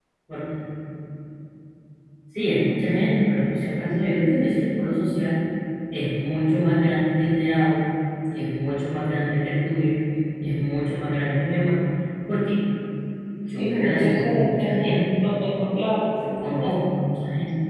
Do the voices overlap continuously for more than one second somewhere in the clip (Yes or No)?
Yes